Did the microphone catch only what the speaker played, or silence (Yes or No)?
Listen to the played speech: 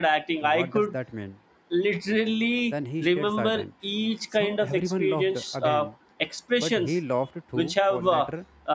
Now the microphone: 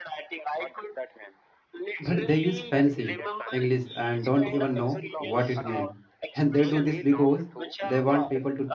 No